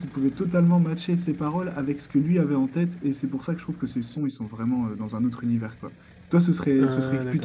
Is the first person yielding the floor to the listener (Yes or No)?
No